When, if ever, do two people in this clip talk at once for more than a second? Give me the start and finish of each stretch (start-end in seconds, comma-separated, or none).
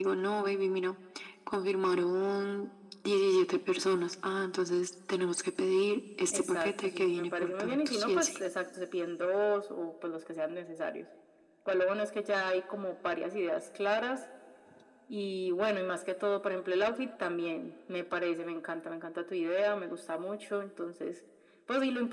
6.3-8.3